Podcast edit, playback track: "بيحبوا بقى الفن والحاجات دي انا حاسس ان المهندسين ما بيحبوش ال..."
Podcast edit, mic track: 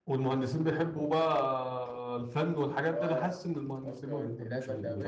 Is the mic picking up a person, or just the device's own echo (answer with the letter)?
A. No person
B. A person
B